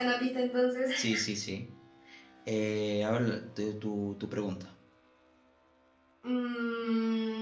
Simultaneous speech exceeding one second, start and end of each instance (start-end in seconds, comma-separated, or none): none